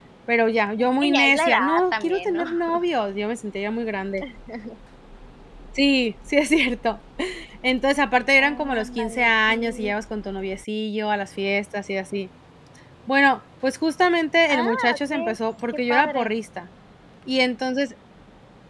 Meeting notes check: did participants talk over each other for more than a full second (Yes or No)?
Yes